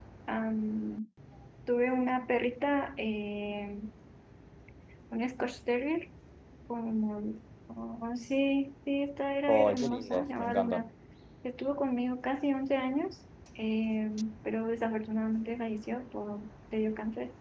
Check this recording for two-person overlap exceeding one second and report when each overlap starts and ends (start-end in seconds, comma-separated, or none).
9.5-10.9